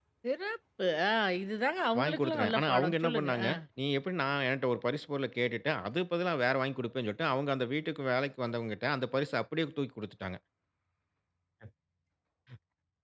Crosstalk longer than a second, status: present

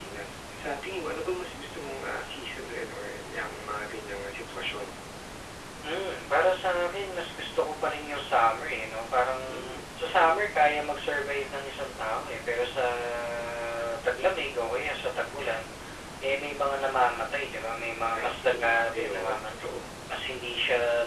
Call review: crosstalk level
present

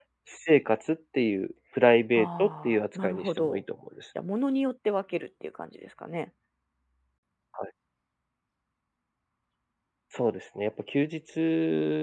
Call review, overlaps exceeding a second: present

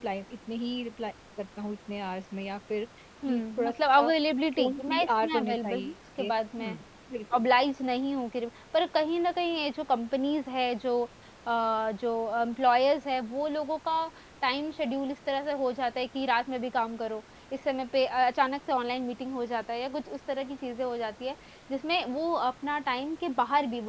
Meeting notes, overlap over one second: present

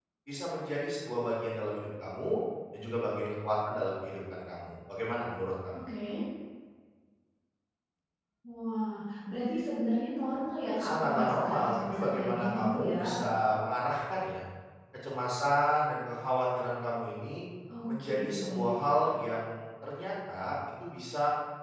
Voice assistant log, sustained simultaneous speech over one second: present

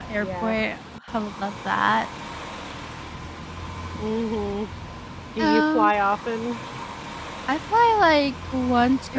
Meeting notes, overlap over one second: none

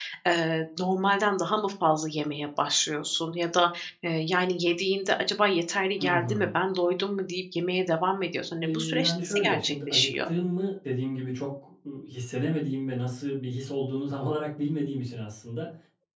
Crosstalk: present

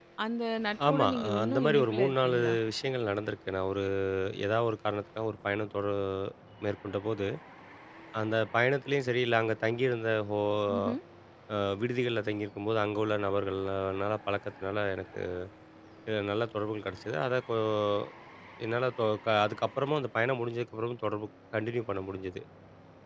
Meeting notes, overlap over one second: present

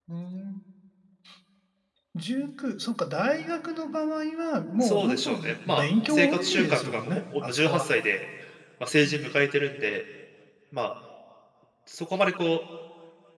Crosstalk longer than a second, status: present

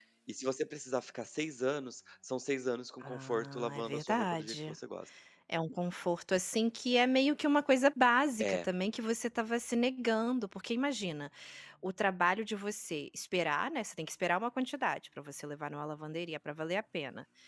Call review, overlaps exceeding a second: present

